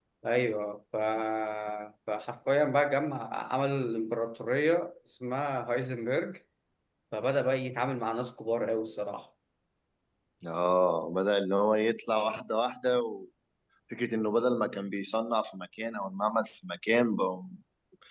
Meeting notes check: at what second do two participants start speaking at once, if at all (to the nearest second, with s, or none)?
none